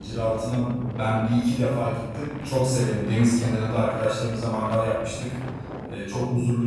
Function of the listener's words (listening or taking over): listening